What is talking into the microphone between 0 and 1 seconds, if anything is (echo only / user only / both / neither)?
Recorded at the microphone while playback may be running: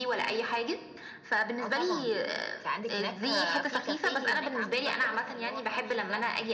echo only